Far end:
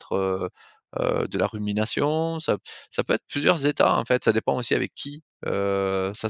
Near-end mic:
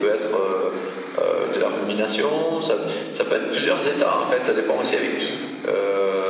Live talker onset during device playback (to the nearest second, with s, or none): none